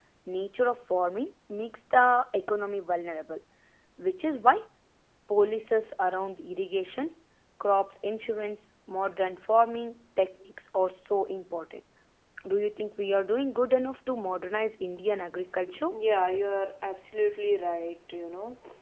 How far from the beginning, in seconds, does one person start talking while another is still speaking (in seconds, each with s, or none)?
none